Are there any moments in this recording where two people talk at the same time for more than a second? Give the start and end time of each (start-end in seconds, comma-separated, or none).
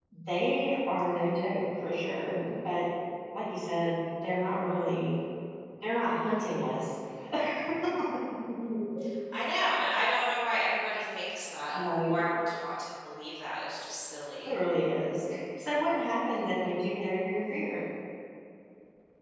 none